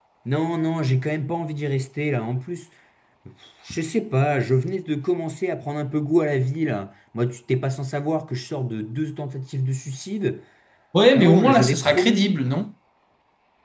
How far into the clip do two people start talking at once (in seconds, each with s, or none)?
11.2 s